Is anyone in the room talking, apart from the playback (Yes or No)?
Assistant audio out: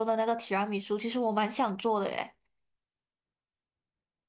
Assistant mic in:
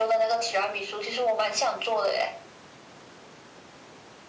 No